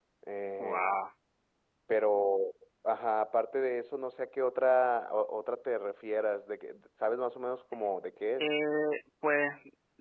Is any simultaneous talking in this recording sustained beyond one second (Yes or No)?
No